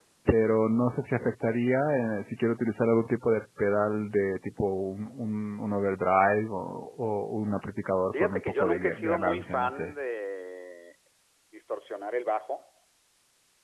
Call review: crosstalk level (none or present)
present